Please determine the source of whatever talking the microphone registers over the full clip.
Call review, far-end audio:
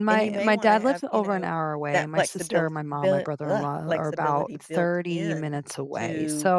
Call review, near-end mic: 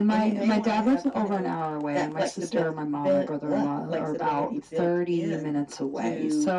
echo only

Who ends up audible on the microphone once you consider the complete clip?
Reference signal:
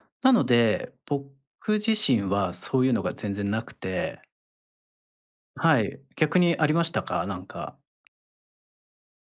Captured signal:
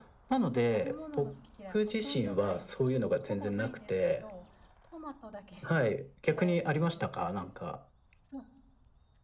both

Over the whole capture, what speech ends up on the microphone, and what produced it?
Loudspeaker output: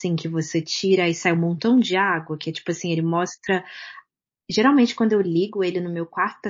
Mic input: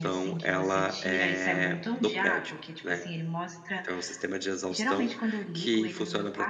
both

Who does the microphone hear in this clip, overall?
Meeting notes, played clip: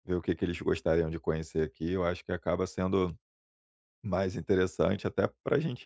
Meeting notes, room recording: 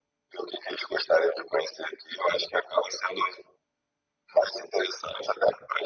echo only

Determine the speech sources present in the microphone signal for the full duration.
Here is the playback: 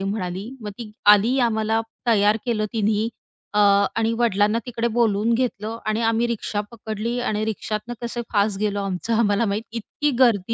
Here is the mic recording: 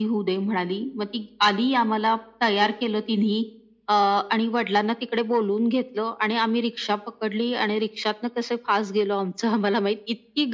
echo only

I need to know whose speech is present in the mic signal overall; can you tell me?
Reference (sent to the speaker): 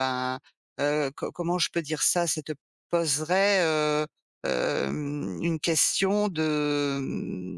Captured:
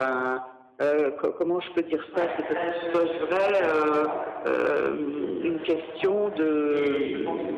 both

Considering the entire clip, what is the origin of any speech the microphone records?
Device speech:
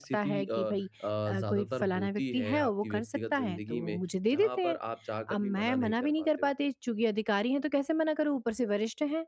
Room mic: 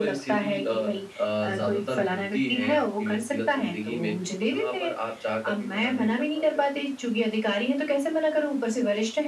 echo only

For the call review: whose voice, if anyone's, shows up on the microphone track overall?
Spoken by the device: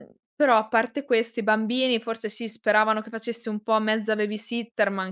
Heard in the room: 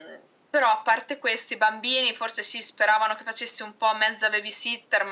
echo only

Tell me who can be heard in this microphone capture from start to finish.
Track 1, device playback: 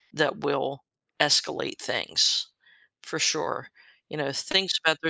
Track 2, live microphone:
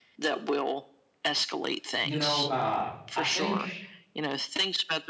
both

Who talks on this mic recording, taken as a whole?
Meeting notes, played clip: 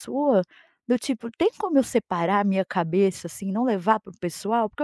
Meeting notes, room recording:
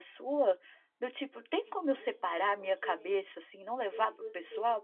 both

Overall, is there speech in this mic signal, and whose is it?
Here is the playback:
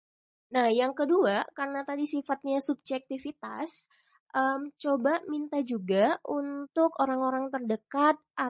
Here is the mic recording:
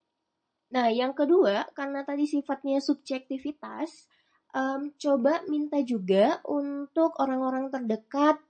echo only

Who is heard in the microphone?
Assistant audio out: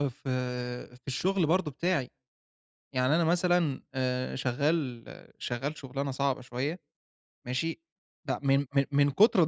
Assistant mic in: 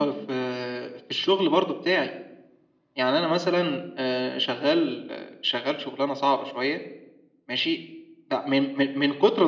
echo only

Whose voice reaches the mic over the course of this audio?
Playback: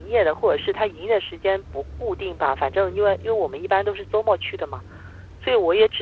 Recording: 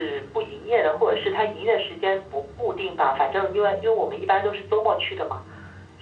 echo only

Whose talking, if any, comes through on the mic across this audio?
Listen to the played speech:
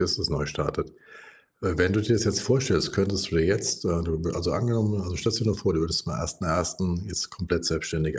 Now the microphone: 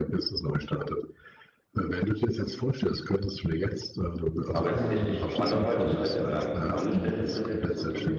both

